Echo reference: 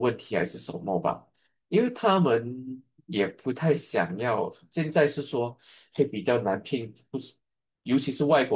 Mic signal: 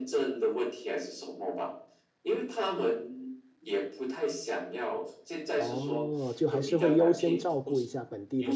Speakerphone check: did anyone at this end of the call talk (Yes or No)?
Yes